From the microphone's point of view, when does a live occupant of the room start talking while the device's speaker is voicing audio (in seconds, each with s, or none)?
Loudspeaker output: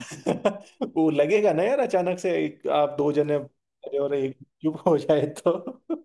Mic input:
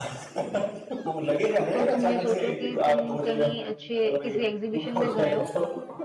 1.7 s